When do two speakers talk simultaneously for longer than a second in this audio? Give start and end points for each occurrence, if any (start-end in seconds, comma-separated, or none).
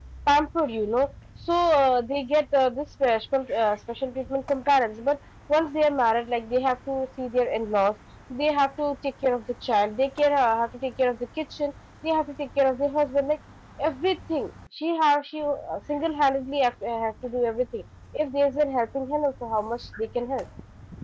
none